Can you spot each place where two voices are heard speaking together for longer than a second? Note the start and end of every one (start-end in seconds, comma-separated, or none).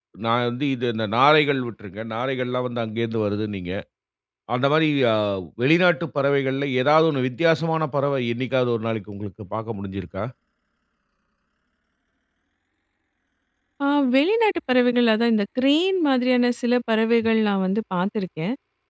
none